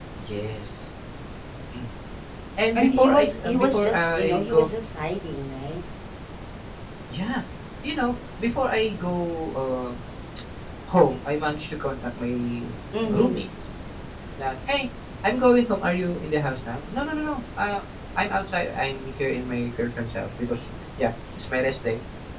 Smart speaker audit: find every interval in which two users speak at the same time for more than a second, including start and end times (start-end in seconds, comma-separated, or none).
2.8-4.7